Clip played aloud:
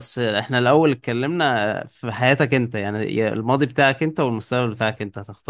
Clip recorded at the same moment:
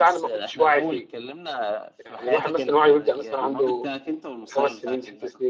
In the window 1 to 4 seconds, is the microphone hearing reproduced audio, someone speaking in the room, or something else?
both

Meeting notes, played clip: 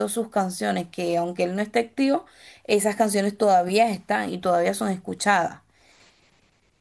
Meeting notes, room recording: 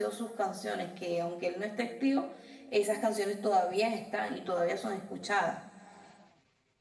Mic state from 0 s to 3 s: echo only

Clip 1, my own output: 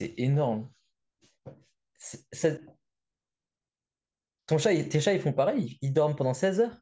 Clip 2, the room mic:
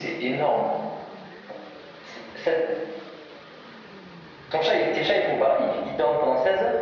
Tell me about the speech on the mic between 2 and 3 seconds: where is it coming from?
echo only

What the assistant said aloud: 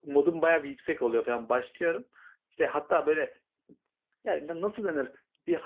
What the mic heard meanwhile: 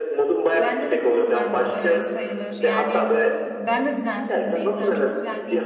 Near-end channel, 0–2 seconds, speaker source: both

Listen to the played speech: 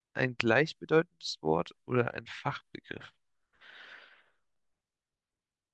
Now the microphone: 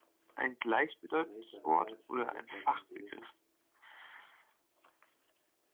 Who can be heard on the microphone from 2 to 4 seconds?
both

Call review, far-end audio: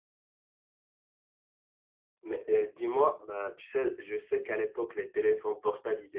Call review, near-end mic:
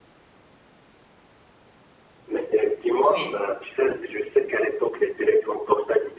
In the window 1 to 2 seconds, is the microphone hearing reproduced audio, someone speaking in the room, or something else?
neither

